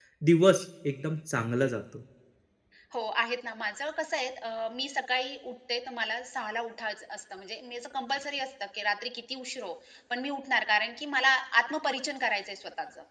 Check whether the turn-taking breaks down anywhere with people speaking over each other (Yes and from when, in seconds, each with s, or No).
No